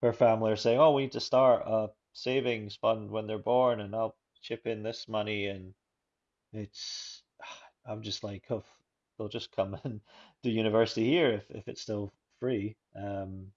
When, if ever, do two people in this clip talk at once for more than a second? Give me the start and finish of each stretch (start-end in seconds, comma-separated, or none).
none